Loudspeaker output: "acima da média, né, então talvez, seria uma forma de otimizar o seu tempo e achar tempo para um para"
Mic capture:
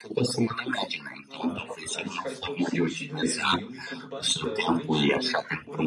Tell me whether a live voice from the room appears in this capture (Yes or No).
Yes